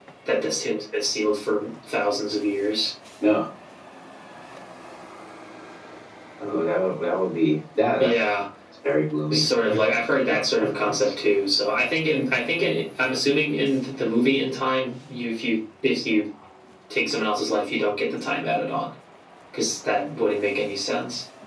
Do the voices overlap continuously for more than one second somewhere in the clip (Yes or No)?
No